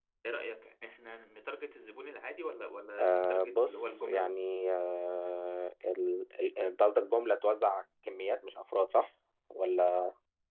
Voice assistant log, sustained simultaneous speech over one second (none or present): present